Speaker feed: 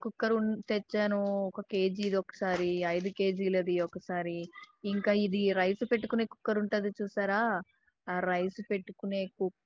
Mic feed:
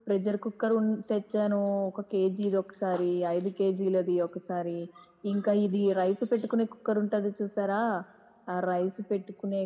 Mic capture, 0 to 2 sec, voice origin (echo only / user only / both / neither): echo only